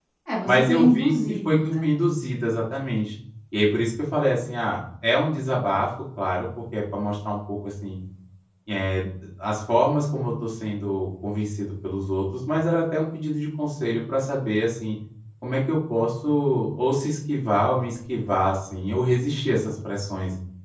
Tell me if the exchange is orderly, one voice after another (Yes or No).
No